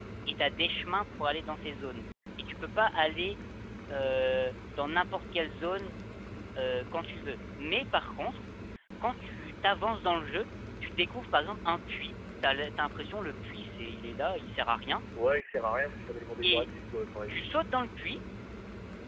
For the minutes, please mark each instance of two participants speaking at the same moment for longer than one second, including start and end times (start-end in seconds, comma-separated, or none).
none